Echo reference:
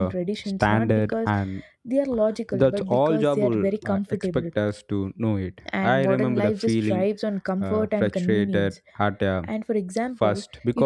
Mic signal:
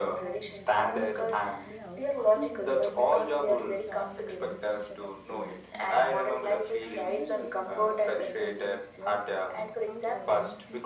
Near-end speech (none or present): present